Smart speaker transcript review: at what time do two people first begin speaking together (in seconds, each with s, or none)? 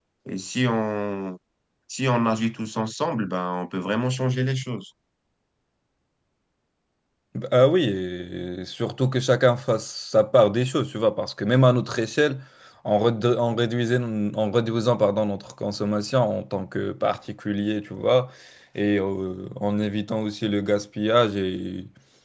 none